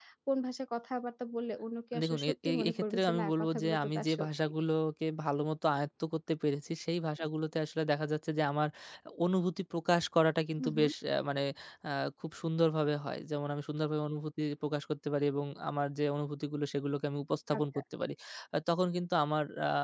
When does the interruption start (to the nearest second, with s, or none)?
2 s